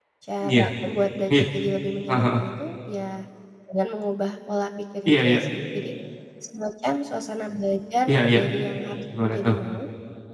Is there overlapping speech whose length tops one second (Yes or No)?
No